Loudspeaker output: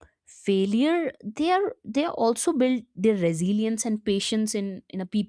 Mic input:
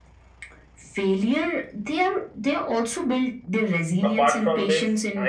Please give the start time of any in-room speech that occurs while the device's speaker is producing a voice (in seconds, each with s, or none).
4.0 s